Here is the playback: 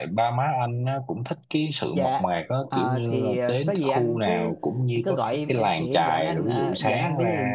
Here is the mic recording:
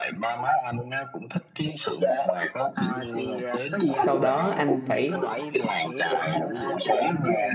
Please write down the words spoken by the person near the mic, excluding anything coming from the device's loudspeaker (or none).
sau đó anh phải